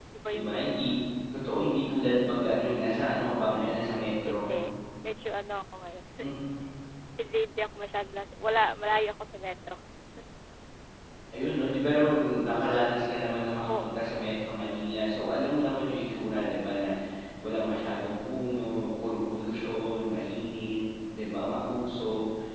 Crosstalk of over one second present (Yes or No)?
No